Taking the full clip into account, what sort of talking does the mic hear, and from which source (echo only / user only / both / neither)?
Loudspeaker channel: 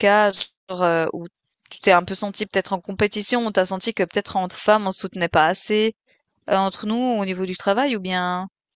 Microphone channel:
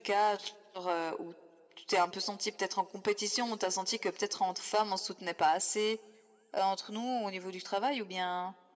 echo only